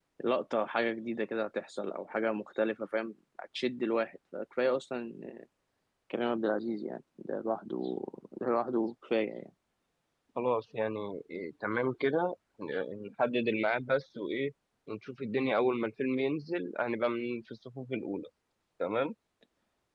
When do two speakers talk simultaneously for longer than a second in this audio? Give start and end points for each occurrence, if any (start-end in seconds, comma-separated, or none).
none